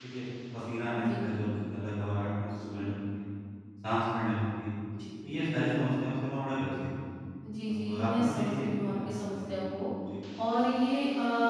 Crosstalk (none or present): present